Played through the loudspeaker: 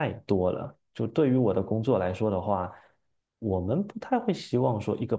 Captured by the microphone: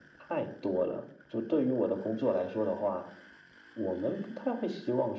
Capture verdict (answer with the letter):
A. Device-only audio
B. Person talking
A